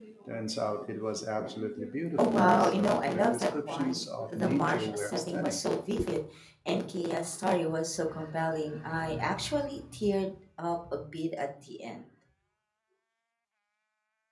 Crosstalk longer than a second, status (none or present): present